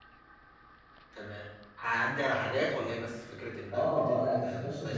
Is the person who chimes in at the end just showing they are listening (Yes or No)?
No